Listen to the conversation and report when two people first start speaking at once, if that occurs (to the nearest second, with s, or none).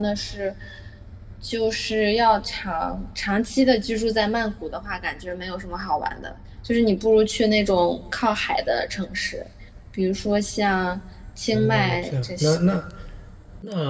12 s